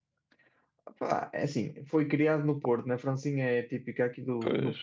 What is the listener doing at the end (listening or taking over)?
listening